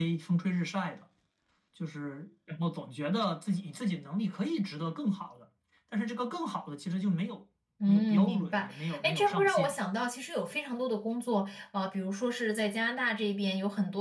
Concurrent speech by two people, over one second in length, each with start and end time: 7.9-9.7

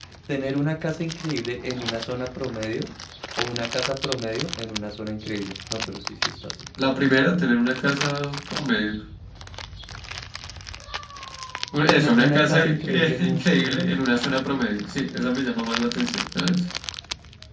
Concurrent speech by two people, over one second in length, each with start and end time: 11.9-14.0

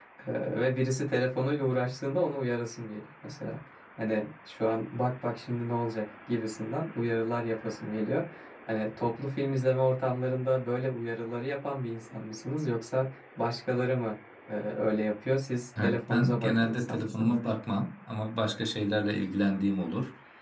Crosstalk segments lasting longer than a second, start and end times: 15.8-17.5

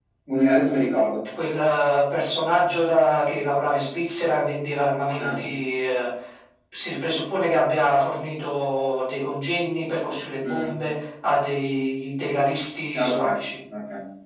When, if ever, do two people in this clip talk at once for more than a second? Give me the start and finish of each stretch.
none

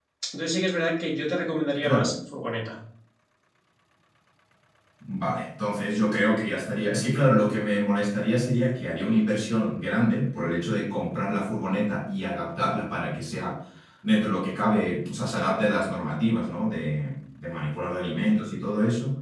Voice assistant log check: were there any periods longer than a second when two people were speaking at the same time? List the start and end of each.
none

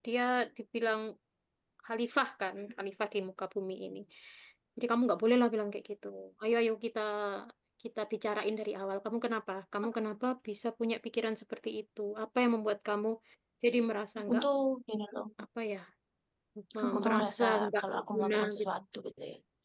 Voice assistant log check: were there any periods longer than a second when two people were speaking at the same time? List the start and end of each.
16.8-18.7

